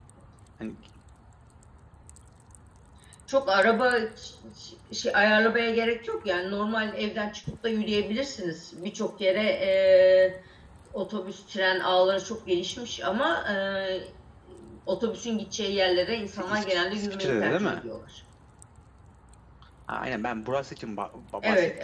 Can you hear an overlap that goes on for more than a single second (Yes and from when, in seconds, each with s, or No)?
Yes, from 16.3 s